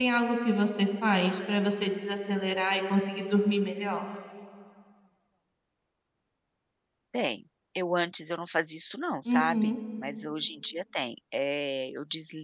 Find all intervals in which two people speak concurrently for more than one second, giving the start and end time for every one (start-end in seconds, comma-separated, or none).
none